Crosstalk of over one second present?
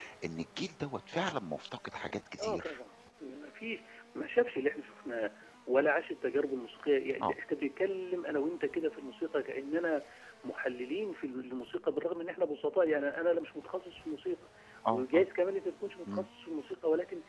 No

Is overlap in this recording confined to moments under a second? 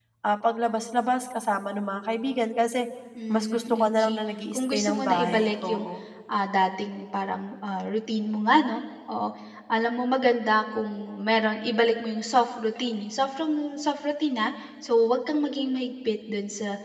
No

